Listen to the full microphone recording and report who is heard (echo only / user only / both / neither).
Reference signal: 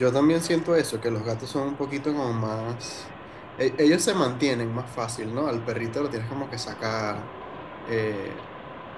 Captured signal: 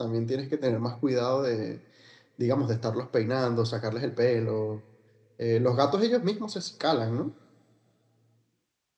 user only